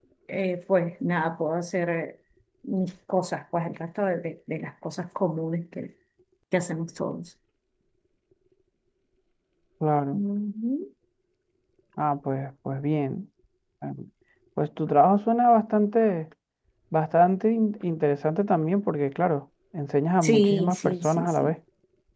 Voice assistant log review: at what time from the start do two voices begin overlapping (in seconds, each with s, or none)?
20.2 s